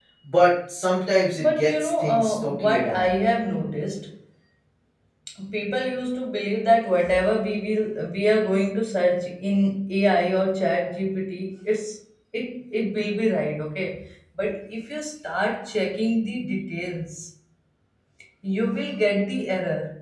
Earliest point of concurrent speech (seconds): 1.3 s

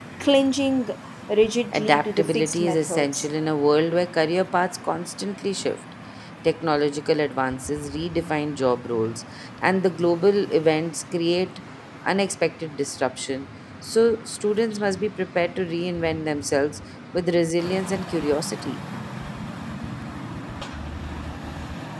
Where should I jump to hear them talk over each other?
1.7 s

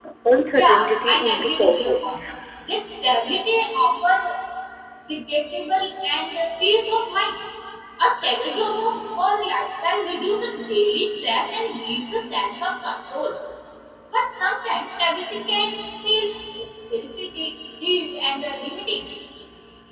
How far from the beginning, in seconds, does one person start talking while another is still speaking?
0.5 s

